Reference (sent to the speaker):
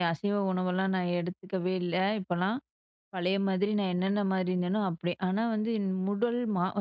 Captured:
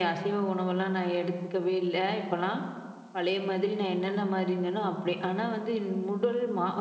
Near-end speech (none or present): none